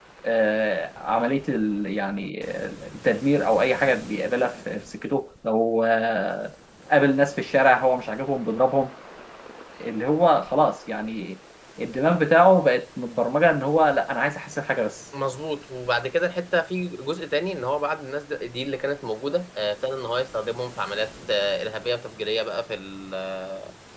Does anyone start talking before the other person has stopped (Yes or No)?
No